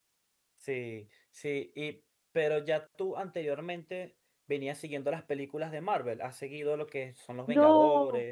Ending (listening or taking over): taking over